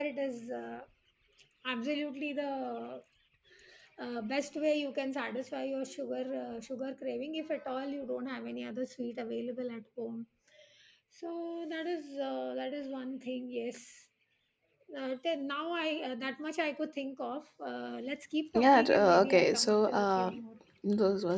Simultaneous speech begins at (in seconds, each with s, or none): 18.6 s